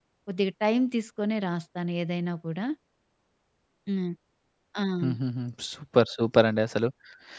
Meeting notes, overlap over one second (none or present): none